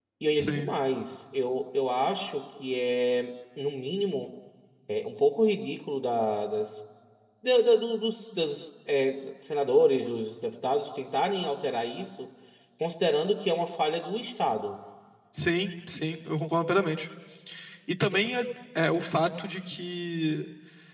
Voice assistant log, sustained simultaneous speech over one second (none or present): none